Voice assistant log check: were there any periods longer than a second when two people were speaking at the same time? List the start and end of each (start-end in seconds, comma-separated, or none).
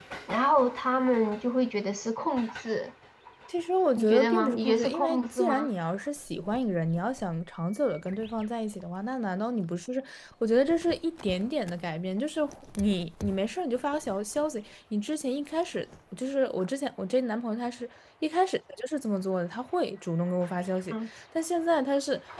4.0-5.7